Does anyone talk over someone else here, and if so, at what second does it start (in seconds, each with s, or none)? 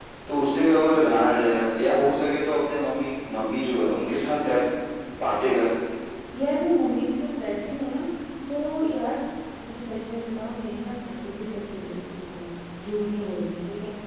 none